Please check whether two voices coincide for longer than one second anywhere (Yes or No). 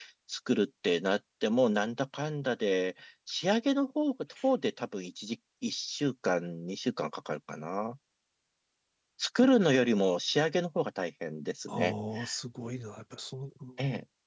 No